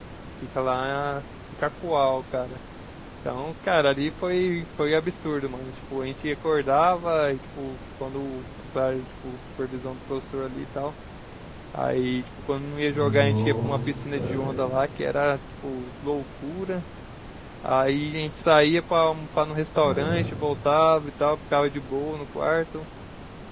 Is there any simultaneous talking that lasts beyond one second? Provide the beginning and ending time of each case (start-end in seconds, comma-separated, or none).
12.9-14.6